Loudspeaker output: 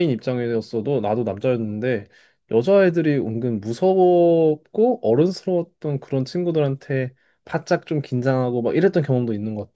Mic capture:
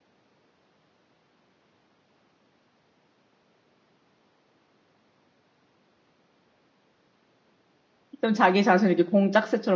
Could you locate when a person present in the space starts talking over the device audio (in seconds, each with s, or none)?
8.2 s